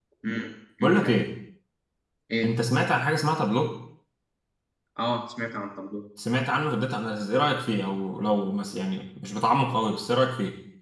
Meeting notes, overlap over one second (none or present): none